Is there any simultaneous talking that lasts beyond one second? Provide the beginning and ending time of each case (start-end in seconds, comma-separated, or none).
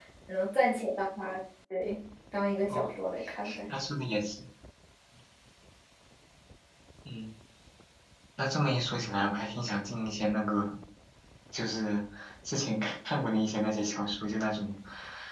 none